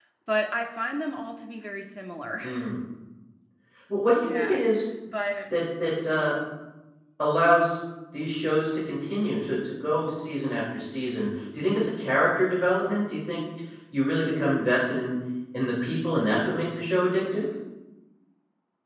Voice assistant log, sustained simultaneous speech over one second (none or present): none